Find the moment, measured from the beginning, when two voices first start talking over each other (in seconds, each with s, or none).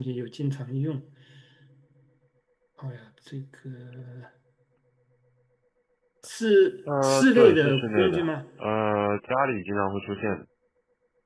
7.0 s